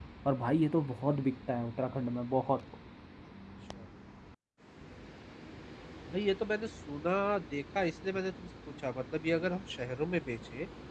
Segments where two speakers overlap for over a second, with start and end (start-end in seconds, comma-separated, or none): none